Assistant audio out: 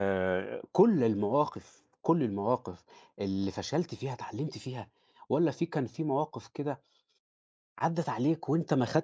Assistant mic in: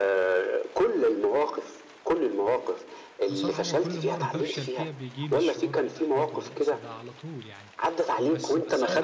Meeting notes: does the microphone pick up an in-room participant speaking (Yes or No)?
Yes